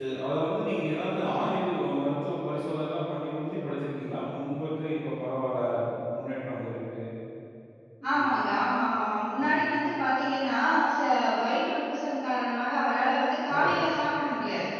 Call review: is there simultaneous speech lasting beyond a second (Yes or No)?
No